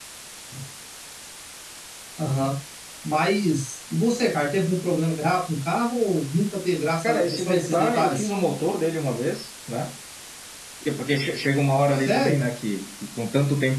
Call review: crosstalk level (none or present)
present